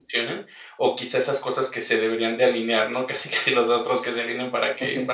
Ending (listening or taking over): listening